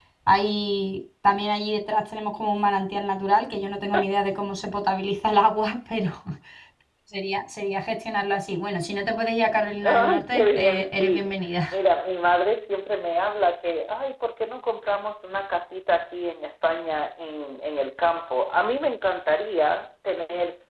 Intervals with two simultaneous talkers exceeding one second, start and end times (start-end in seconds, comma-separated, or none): 9.8-11.3